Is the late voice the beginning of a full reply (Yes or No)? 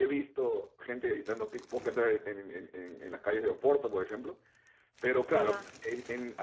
No